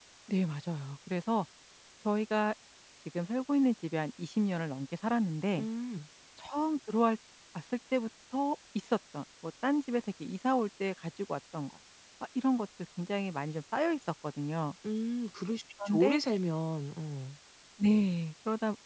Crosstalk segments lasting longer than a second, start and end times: none

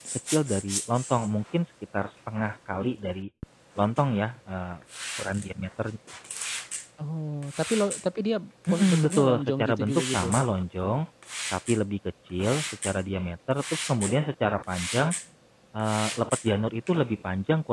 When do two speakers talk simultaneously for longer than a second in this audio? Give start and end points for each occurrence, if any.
8.7-10.3

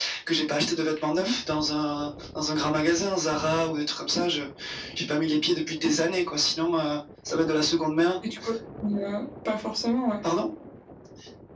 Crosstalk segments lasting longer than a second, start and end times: none

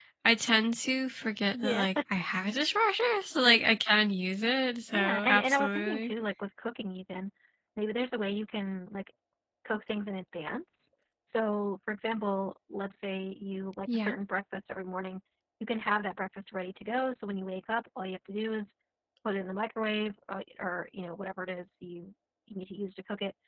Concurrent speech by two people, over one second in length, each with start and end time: 4.9-6.1

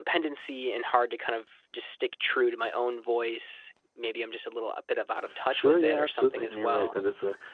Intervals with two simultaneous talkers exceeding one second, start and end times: 5.5-6.9

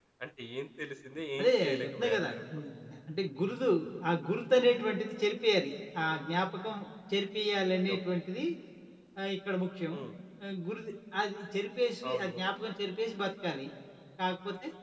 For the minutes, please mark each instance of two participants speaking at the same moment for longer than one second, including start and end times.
1.4-2.7

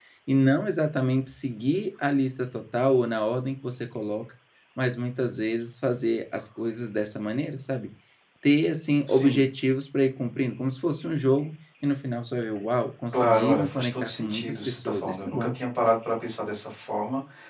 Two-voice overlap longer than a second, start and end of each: 13.1-15.5

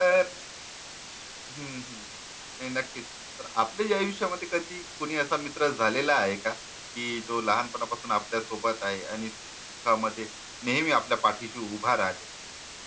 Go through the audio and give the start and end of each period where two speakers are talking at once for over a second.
none

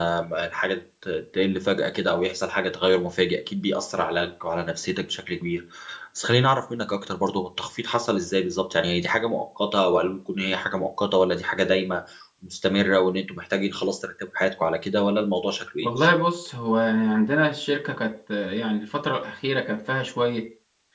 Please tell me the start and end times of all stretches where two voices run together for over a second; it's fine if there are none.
none

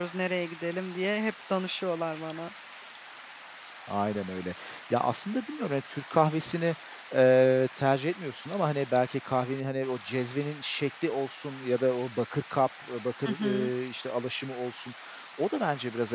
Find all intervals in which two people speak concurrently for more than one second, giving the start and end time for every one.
none

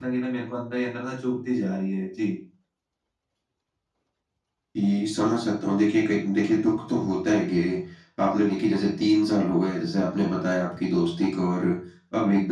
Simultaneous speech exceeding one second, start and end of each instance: none

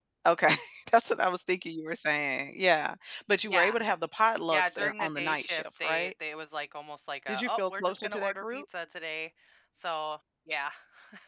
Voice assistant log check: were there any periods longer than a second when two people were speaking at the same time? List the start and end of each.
4.5-6.1, 7.3-8.6

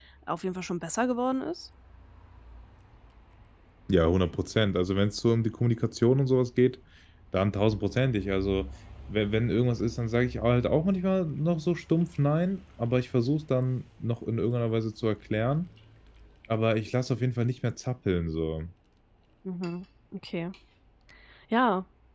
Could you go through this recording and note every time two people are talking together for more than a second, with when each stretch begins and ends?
none

